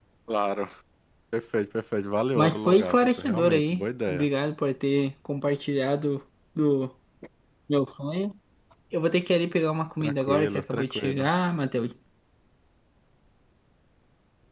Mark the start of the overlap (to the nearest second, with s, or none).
2 s